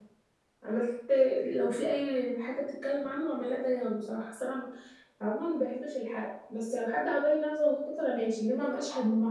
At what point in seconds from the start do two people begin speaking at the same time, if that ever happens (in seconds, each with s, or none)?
none